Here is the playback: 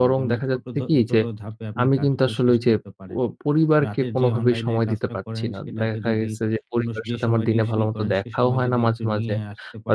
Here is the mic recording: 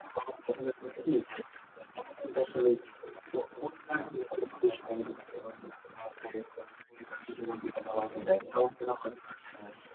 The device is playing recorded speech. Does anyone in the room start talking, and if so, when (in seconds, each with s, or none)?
none